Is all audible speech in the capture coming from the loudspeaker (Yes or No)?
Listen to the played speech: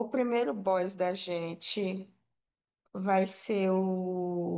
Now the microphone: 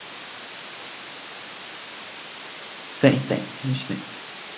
No